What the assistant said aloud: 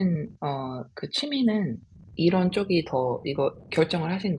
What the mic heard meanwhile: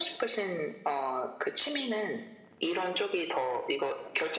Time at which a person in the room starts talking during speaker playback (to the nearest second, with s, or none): none